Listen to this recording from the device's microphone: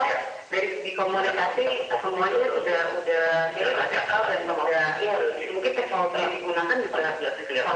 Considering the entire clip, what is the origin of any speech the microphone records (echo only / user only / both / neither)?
echo only